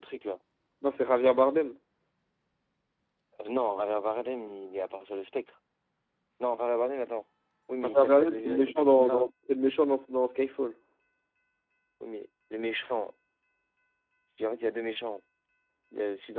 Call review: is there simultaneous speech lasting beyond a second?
Yes, from 7.8 s

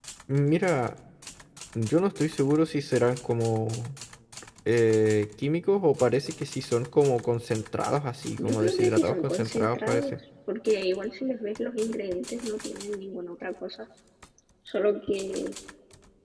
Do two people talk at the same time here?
Yes, from 8.4 s

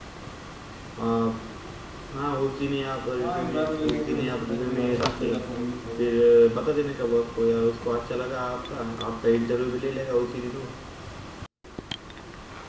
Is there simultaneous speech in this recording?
Yes, from 3.2 s

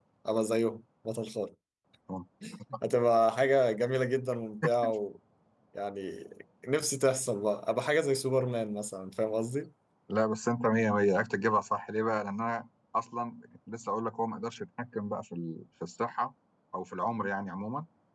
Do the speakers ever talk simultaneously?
No

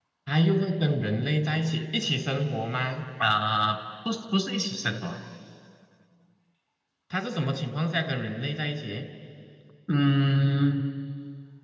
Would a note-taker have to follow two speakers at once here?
No

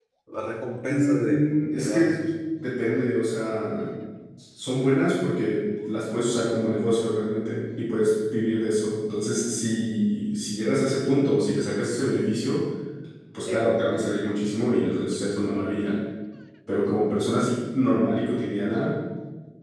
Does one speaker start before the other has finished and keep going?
Yes, from 0.9 s

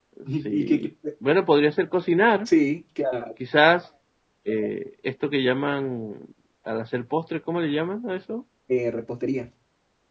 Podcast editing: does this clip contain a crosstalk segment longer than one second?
No

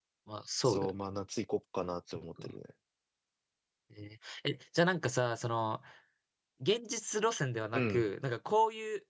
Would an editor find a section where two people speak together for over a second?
No

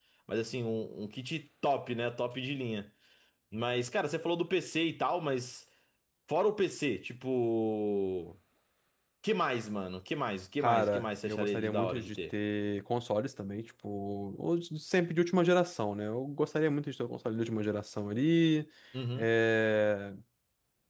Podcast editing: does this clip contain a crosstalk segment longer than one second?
Yes, from 10.6 s

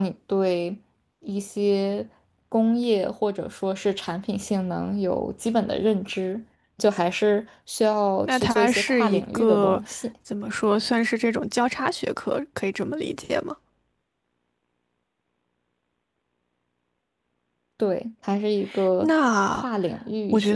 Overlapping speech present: Yes, from 8.2 s

